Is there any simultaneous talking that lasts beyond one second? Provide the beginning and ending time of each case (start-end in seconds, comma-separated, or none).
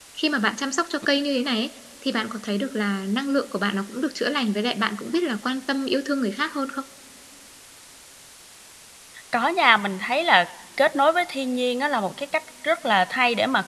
none